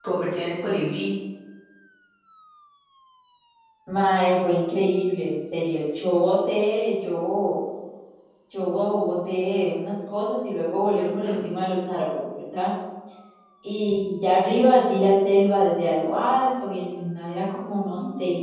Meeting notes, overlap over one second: none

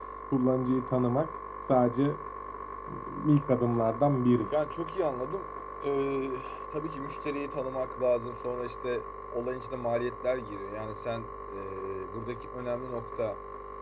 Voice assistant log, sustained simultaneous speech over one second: none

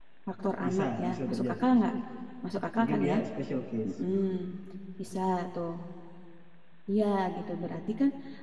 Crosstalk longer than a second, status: present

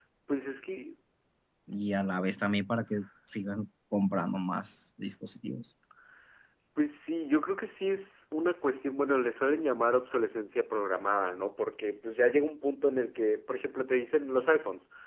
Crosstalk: none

